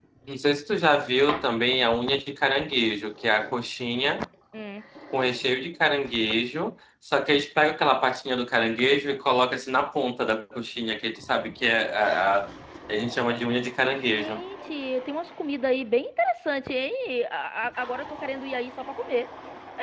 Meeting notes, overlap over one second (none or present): none